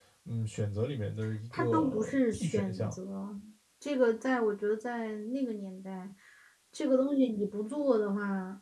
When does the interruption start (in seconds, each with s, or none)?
1.5 s